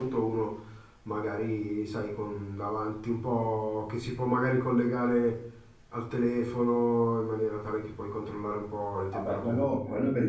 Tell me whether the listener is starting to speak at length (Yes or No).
Yes